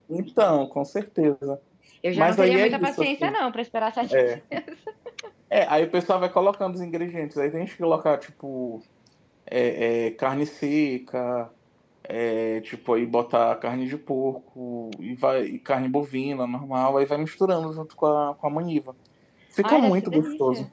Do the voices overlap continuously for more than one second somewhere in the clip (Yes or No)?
Yes